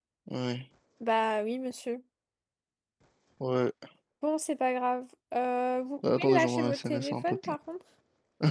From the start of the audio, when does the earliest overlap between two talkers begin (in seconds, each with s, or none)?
6.0 s